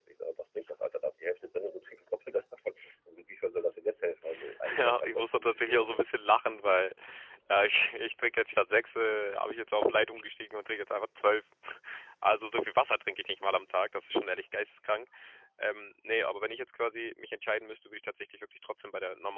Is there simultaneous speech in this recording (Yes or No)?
Yes